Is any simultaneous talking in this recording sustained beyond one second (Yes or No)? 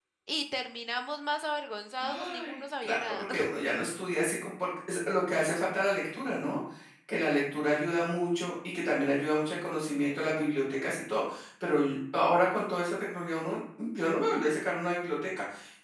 Yes